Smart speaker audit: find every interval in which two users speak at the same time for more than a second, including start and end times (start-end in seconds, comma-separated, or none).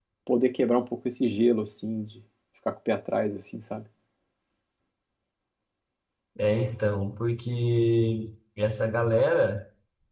none